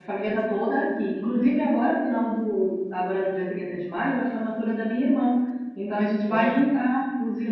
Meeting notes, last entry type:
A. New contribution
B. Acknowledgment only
B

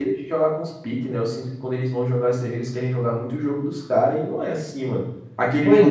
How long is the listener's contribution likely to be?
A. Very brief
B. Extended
A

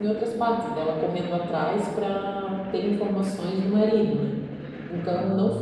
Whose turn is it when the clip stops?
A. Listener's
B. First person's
B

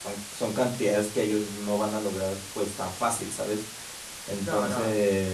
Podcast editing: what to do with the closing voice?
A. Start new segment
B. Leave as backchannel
B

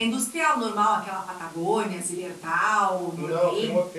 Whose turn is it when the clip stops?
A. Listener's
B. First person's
A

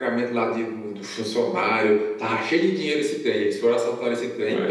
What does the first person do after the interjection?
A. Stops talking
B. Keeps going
B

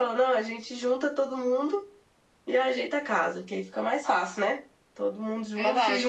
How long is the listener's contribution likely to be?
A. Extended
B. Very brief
A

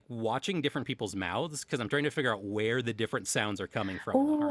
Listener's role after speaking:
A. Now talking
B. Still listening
A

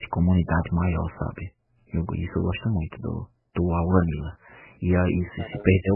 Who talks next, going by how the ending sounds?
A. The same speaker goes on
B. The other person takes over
A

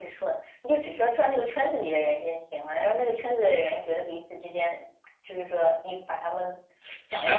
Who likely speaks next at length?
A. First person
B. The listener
B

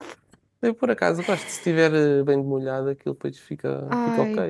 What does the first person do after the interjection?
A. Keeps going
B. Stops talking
B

